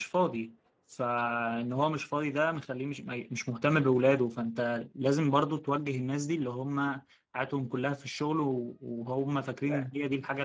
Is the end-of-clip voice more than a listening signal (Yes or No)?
No